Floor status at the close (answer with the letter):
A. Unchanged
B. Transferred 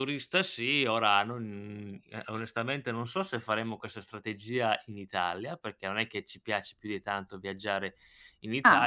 A